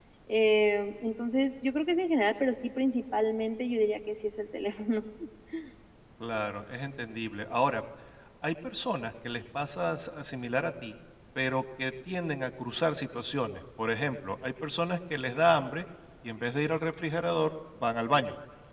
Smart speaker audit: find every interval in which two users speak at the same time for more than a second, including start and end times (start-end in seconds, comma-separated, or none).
none